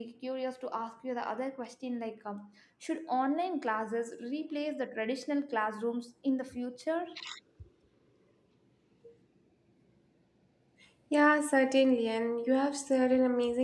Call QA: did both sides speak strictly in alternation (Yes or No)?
Yes